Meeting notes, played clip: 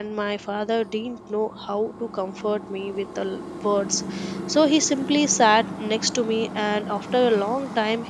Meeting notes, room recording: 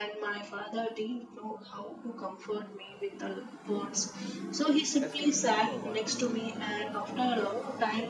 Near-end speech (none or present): present